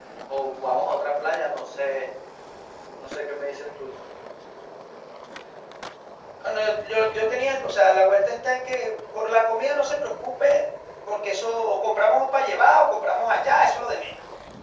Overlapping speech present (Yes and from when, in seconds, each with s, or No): No